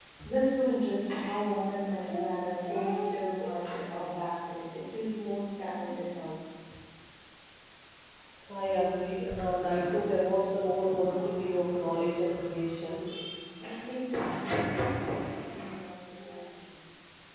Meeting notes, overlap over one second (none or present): none